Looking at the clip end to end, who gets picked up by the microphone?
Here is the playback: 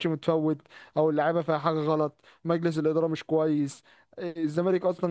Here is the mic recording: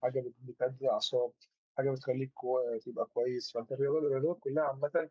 user only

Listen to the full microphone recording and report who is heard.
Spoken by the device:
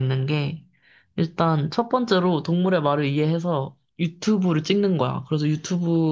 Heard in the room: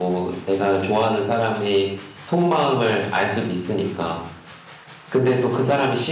user only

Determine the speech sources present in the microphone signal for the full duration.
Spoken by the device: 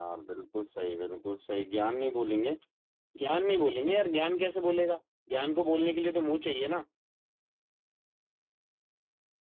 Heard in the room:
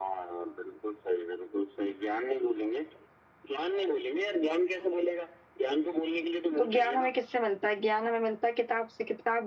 both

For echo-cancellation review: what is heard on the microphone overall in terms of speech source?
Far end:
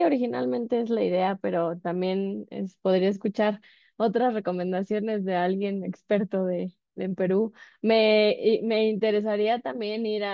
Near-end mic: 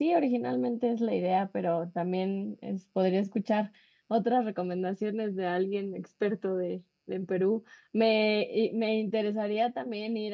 echo only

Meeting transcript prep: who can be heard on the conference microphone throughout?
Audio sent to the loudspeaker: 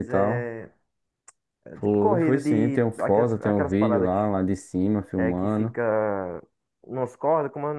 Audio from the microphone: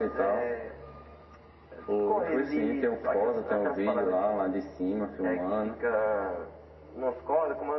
echo only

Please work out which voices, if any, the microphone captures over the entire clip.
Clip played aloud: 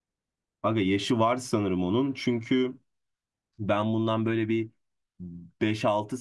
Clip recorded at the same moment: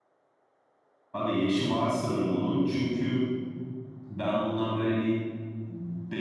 echo only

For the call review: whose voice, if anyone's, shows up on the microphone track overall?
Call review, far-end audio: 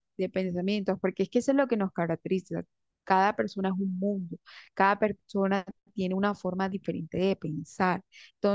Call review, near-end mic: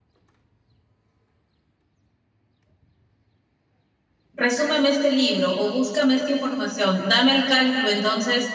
user only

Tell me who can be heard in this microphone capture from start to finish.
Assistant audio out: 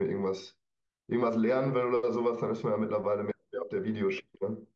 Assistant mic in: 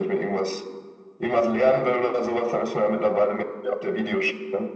echo only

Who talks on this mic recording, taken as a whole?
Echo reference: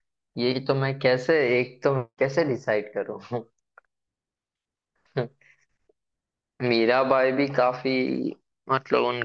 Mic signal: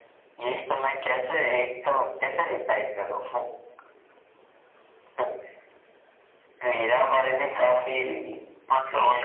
echo only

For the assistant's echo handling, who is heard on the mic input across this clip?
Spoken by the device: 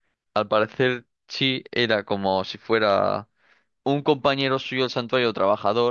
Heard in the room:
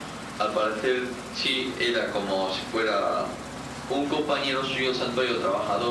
echo only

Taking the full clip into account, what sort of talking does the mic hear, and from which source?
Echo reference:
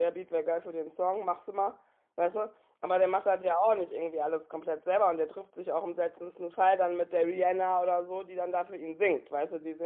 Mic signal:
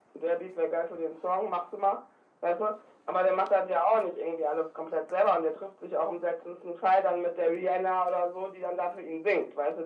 echo only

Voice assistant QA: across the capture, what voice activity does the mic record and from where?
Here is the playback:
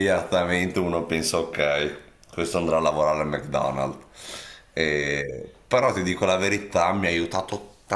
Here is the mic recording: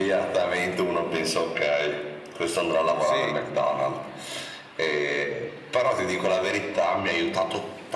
both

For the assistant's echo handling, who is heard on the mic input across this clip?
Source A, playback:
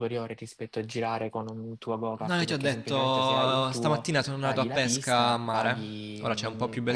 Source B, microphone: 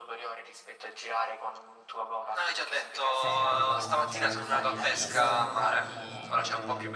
both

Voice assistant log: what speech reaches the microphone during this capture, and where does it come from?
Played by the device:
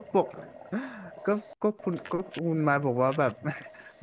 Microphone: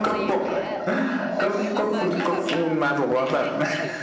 both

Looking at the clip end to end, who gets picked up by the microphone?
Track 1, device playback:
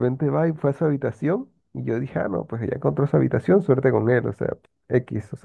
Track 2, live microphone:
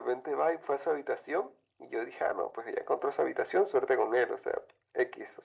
echo only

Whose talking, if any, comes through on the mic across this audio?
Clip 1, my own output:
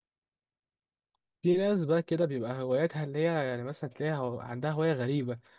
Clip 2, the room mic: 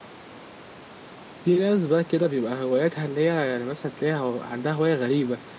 echo only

